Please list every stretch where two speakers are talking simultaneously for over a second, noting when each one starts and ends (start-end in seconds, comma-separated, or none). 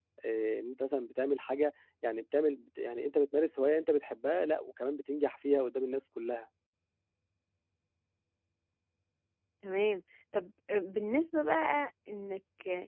none